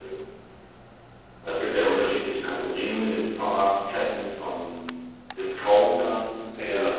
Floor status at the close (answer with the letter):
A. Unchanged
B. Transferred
A